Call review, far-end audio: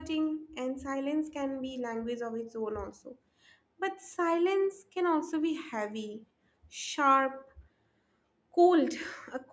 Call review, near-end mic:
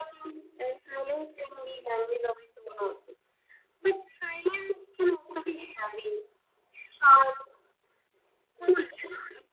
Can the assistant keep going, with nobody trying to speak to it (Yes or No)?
Yes